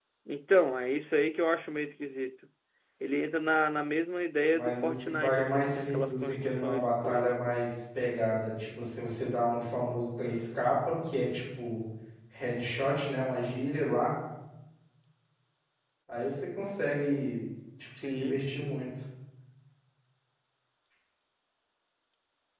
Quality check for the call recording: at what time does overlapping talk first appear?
4.5 s

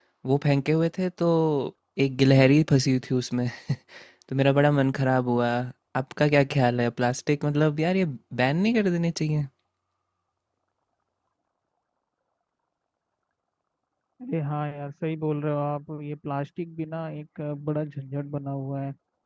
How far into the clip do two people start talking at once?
none

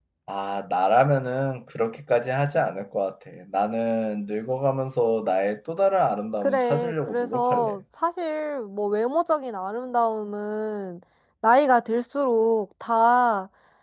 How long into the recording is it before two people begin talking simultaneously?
6.4 s

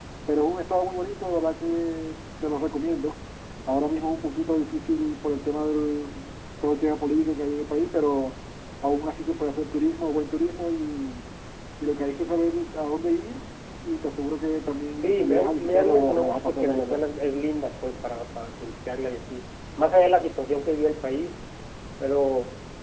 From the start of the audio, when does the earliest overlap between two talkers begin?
15.0 s

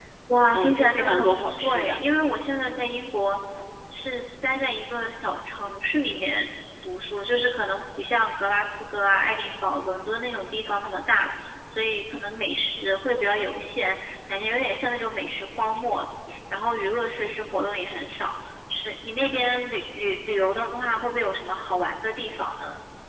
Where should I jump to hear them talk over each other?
0.5 s

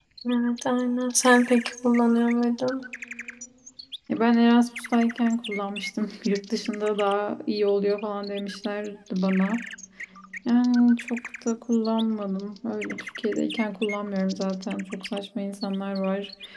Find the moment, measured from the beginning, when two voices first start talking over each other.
none

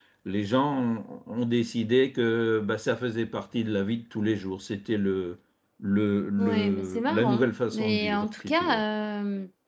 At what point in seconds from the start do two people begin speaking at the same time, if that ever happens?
6.4 s

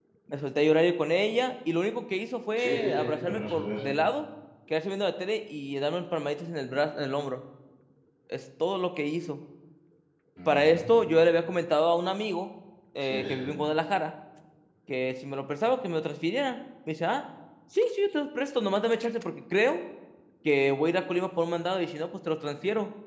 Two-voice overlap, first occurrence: 2.5 s

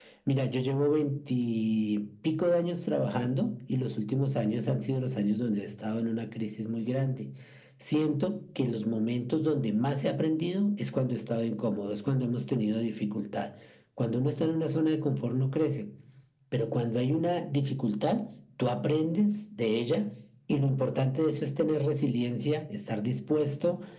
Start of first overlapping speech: none

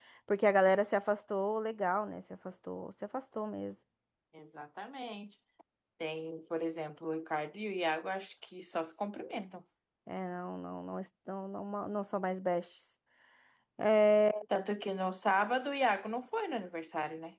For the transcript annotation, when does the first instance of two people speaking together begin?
none

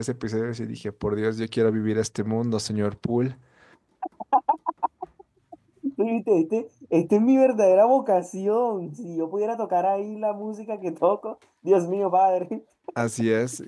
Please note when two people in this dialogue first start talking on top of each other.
none

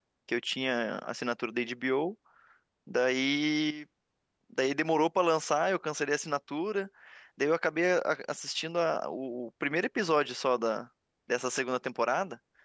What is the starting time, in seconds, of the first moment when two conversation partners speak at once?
none

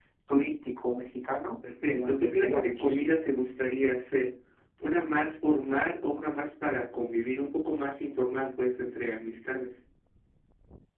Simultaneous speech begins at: 1.9 s

